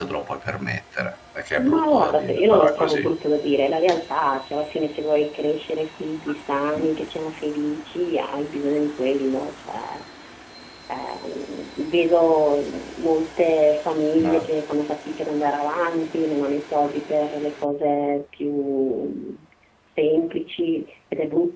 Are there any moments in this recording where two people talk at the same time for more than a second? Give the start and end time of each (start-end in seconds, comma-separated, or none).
1.6-3.1